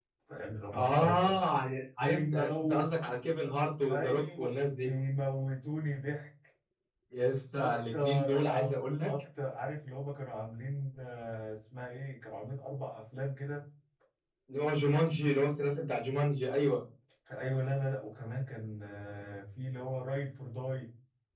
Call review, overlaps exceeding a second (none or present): present